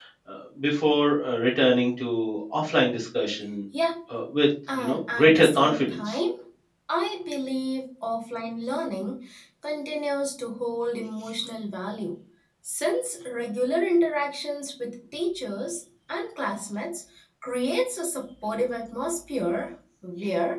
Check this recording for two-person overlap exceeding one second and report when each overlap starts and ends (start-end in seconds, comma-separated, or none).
4.8-6.2